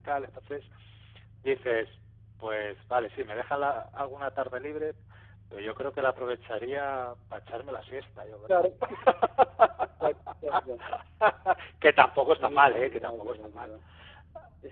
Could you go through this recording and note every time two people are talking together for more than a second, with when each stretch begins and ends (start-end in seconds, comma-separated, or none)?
12.4-13.7